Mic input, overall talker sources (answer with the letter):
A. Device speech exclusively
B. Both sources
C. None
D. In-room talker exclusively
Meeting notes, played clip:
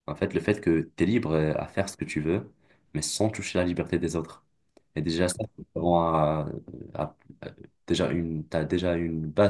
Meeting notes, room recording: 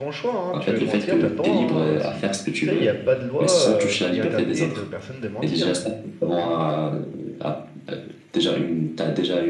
B